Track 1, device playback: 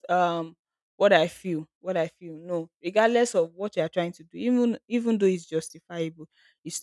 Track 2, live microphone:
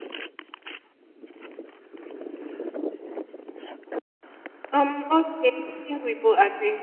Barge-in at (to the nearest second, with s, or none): 5 s